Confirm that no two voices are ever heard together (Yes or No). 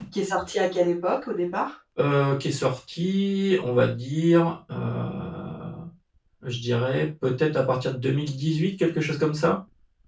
Yes